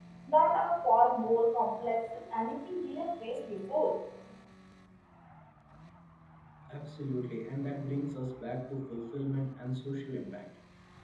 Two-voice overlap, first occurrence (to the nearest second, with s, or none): none